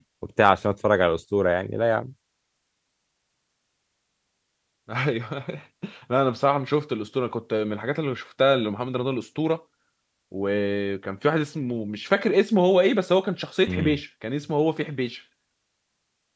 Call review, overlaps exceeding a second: none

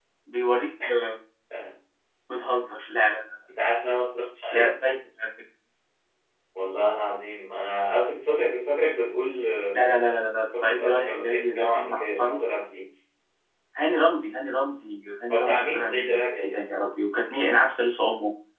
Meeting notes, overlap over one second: present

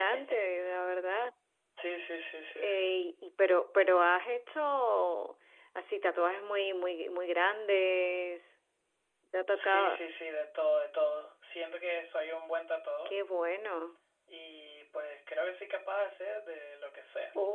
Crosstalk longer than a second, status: none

